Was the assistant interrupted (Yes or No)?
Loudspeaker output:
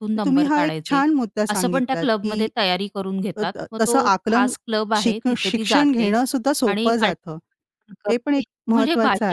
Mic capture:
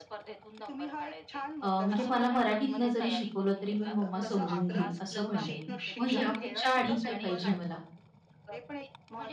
Yes